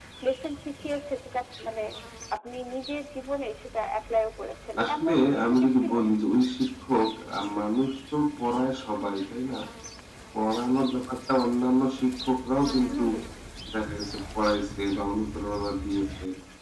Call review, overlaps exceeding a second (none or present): present